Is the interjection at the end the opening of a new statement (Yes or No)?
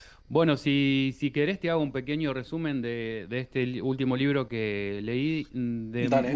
No